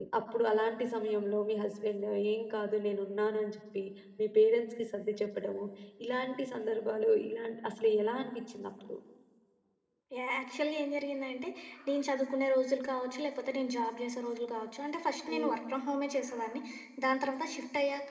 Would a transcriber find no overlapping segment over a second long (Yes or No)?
Yes